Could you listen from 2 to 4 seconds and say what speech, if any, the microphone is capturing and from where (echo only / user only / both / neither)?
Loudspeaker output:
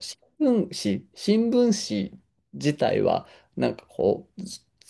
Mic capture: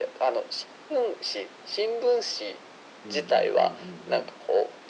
both